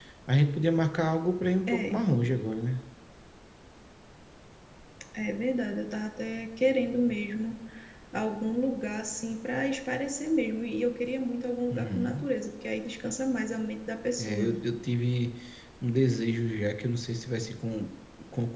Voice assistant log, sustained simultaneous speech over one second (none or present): none